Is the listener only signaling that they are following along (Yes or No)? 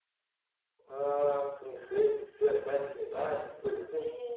No